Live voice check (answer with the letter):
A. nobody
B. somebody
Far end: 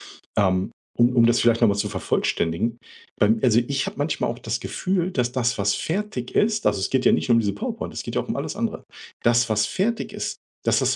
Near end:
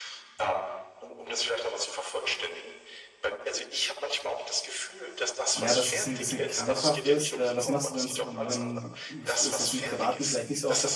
B